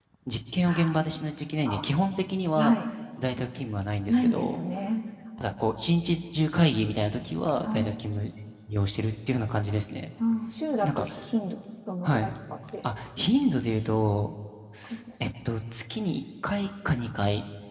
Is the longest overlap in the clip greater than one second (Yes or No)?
No